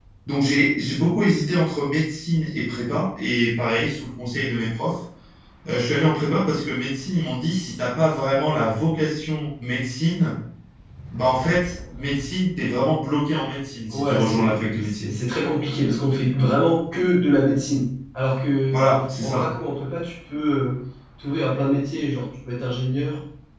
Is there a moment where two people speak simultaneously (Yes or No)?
Yes